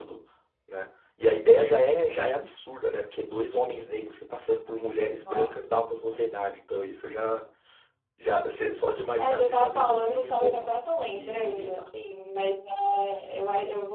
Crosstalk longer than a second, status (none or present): present